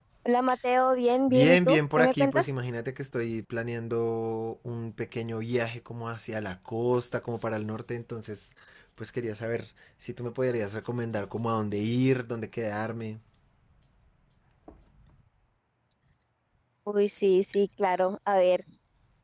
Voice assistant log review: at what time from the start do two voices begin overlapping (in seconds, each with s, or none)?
1.3 s